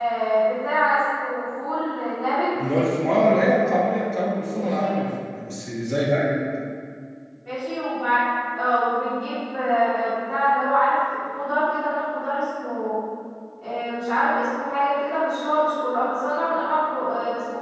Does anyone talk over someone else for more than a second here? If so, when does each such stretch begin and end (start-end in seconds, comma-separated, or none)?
none